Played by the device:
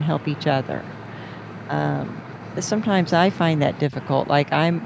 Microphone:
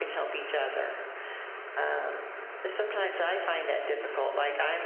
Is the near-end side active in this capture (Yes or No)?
Yes